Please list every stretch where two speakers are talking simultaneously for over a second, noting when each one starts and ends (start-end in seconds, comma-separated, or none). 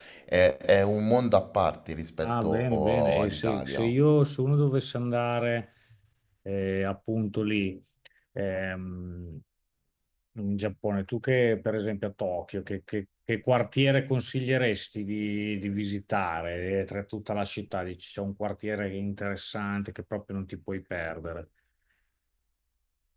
2.2-3.9